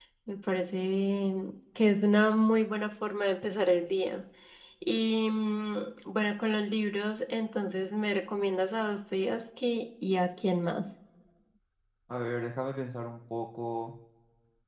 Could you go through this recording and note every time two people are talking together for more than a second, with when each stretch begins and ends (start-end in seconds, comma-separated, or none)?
none